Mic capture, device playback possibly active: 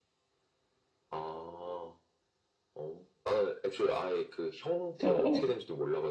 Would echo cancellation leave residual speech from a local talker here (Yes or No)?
Yes